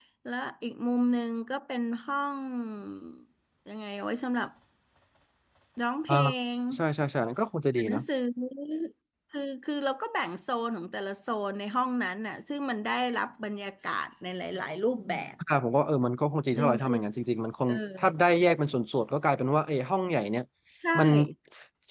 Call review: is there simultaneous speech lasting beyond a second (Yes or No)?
No